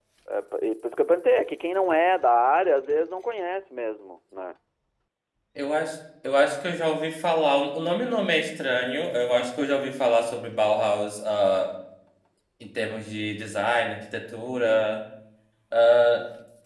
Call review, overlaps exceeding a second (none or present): none